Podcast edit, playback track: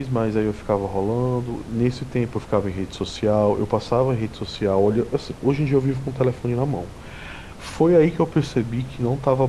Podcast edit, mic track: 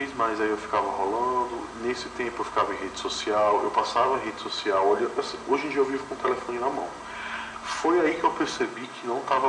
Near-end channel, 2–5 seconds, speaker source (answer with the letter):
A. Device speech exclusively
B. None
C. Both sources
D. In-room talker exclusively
A